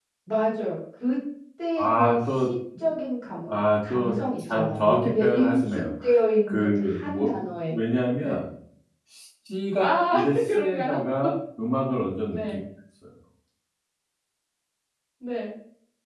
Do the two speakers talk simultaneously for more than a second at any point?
Yes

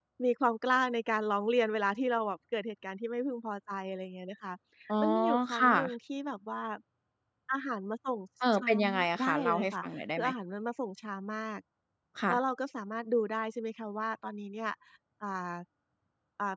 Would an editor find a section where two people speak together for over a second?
Yes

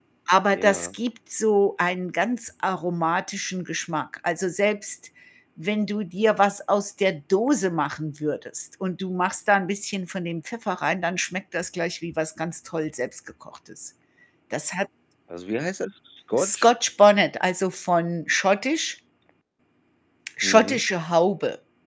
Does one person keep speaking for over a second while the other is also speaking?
No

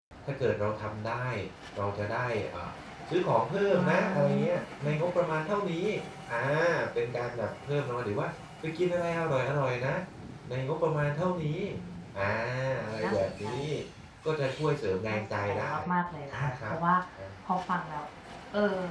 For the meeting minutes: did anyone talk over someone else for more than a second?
Yes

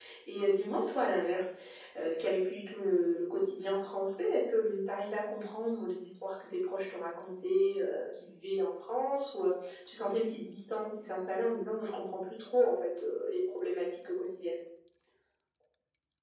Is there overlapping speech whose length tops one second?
No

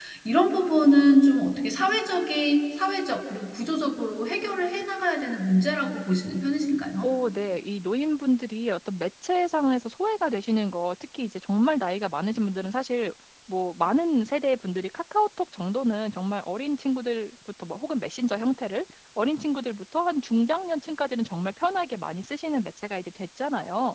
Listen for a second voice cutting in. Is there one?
No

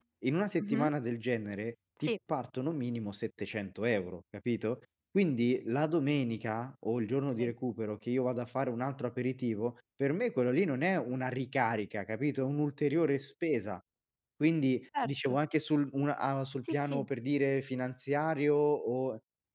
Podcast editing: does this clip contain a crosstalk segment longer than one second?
No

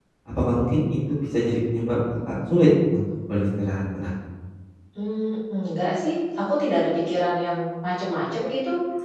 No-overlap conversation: Yes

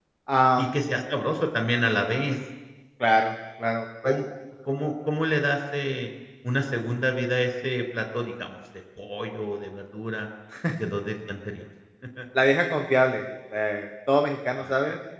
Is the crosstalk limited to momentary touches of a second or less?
Yes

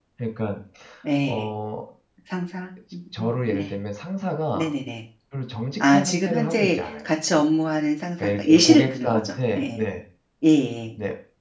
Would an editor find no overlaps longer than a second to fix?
No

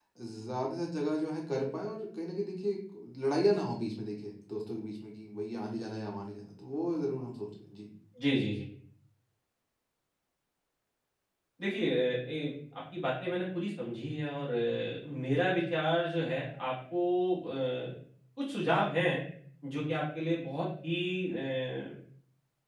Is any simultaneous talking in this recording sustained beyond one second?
No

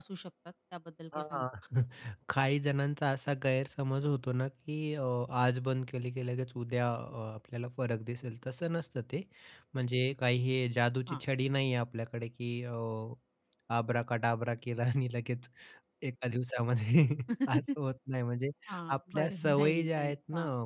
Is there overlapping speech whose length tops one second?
Yes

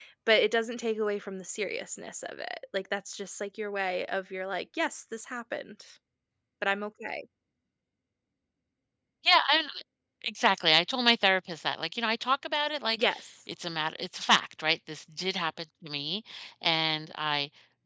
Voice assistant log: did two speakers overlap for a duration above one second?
No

